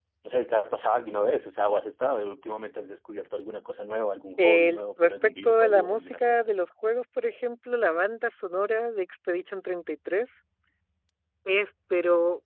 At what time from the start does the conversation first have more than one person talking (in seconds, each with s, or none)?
4.4 s